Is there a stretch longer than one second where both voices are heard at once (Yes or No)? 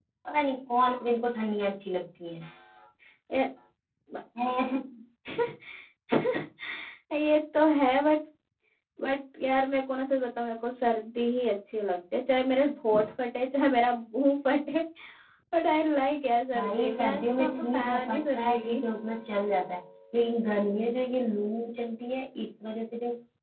Yes